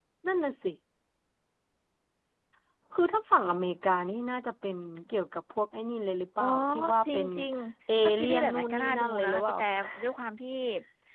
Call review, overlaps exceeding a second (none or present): present